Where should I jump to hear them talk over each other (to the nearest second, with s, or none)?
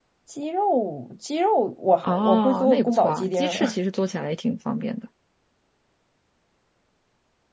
2 s